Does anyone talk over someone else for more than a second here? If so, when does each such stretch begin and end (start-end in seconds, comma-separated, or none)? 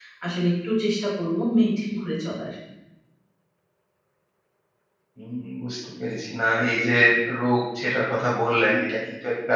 none